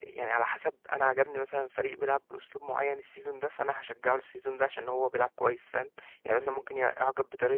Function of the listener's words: listening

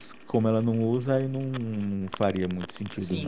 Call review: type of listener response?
taking over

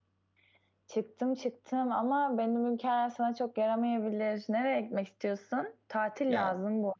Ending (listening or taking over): listening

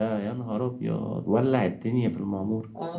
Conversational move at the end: taking over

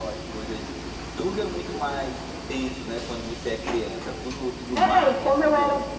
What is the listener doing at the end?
taking over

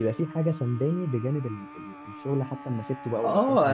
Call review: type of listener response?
taking over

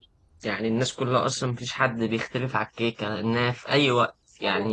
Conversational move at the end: listening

